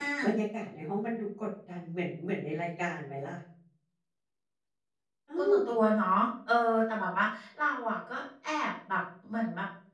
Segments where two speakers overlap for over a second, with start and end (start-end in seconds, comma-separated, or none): none